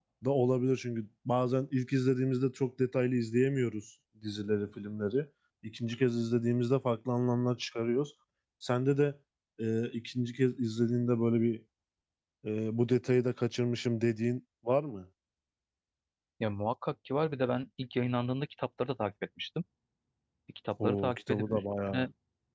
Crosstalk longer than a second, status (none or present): present